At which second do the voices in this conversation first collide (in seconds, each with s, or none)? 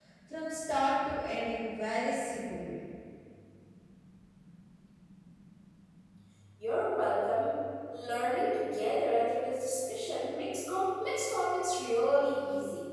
none